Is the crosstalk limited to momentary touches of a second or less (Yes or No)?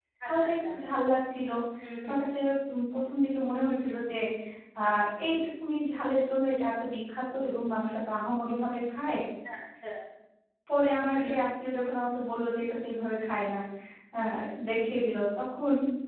Yes